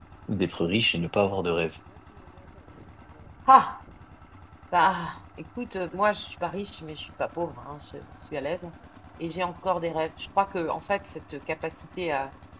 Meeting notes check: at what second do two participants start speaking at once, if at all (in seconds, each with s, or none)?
none